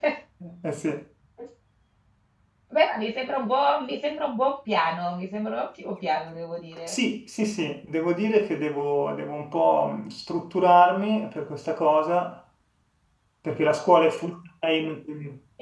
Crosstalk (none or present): none